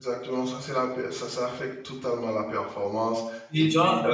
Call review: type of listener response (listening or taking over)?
taking over